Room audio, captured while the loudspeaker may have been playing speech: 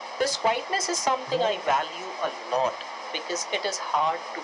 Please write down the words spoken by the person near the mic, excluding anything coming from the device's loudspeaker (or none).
Growth